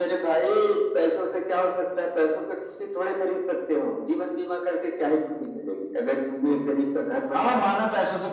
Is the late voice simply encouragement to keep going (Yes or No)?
No